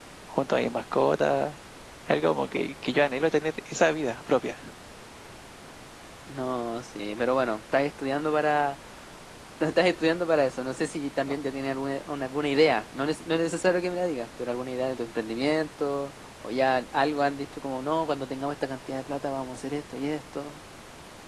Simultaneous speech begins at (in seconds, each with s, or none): none